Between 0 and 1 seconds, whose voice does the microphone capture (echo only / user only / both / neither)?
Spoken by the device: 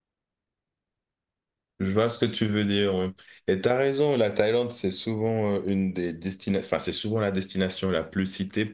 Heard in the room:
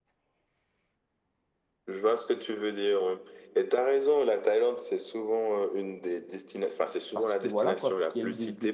neither